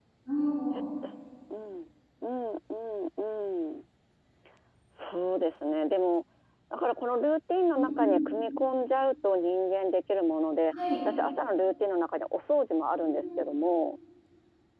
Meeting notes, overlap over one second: none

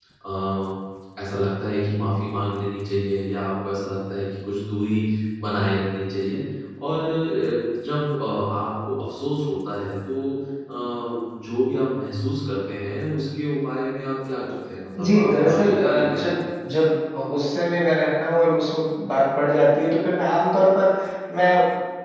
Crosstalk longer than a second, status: present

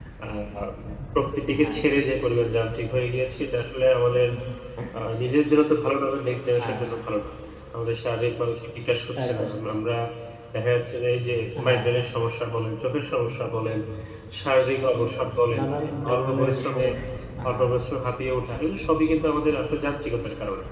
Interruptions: present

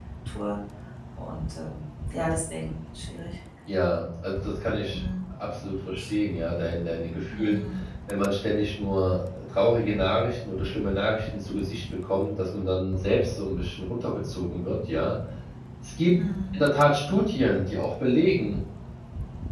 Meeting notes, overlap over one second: none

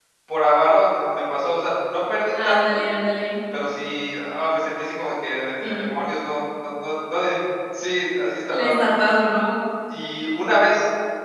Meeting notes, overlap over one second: none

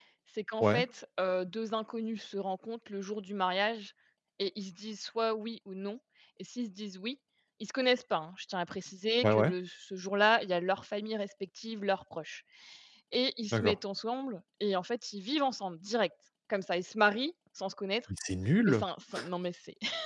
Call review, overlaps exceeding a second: none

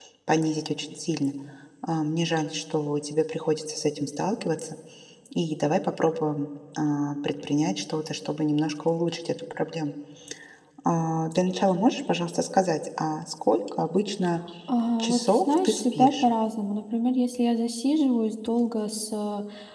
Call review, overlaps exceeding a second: present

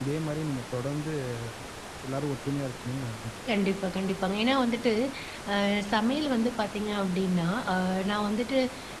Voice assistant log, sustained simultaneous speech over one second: none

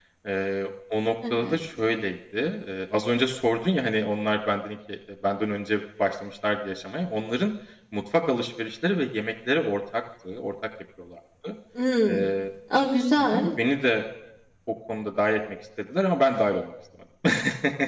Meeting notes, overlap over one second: none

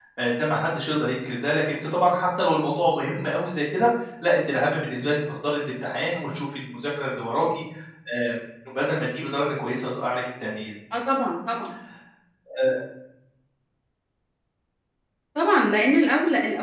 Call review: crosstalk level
none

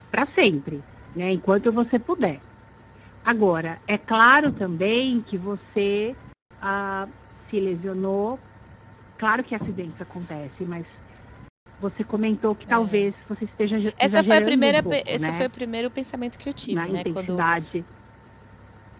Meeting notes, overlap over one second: present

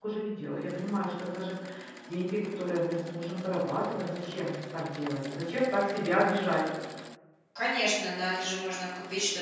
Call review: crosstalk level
none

